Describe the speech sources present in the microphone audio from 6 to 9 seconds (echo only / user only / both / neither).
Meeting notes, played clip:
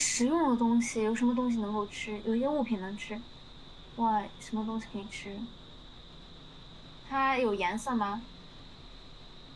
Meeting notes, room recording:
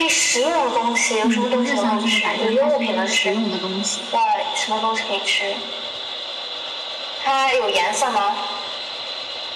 echo only